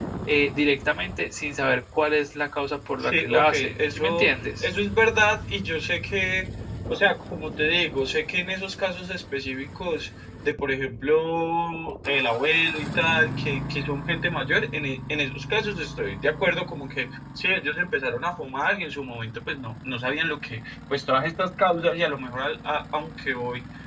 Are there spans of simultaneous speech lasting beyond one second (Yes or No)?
Yes